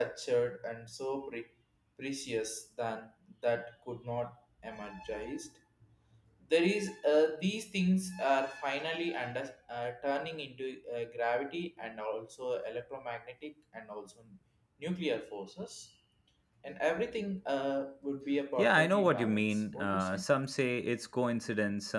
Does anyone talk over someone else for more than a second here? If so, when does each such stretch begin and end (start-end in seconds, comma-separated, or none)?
18.6-20.2